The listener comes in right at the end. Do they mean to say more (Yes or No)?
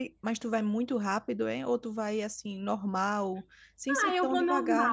Yes